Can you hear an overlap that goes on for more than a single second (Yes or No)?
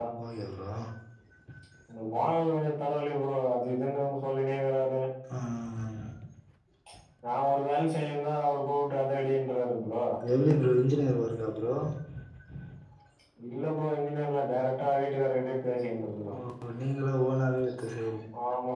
No